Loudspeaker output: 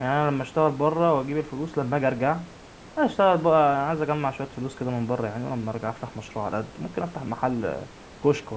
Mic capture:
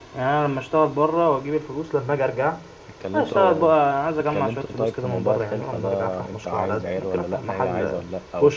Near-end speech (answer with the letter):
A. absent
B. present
B